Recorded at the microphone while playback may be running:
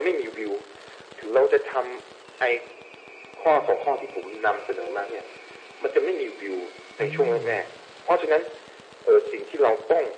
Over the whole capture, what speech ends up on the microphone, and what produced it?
both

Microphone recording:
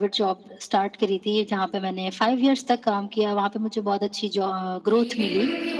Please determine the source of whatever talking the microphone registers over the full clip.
both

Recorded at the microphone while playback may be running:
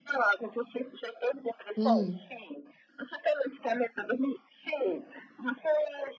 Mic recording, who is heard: both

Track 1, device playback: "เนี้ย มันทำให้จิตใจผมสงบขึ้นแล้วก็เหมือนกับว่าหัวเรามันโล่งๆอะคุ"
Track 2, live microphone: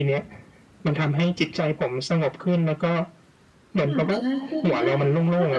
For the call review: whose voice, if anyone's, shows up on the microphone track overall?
both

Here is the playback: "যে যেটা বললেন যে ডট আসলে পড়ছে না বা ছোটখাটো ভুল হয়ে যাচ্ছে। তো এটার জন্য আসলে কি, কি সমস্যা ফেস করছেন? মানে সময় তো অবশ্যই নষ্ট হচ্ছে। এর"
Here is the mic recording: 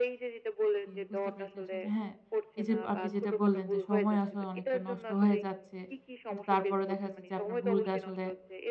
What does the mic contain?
both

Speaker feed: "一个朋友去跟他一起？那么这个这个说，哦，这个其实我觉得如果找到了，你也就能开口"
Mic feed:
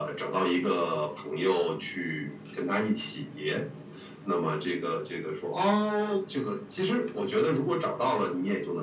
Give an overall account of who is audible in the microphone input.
echo only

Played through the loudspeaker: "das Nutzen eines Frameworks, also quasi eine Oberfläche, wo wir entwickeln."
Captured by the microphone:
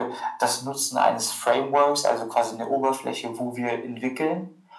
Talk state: echo only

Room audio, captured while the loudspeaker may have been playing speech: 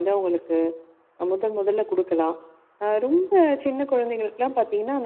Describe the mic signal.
echo only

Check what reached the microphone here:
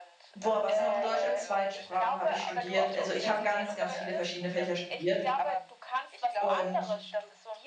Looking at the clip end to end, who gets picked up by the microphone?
both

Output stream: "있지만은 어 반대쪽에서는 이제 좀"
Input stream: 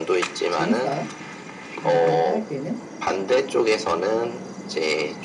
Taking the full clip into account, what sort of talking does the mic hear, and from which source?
both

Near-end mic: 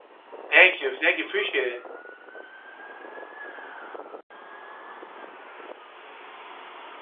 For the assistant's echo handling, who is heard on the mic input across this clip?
user only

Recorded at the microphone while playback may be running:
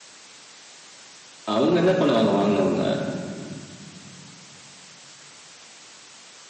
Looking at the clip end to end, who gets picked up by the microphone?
user only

